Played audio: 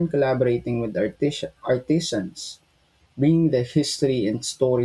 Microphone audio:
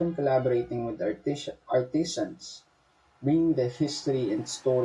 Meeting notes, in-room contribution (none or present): none